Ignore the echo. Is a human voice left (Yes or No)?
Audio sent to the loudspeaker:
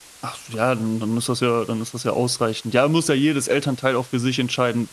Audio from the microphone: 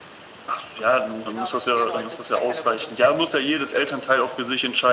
Yes